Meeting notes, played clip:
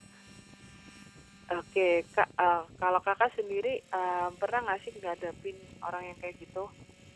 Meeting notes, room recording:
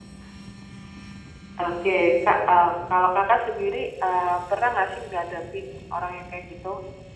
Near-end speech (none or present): none